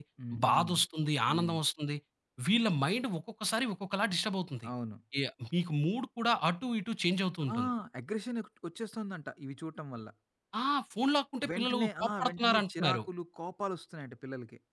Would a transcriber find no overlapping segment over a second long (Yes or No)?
No